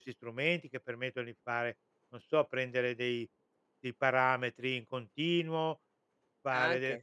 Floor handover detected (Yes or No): No